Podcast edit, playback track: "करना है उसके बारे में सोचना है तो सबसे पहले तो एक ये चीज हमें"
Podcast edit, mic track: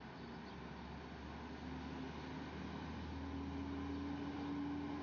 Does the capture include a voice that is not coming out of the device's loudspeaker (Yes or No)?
No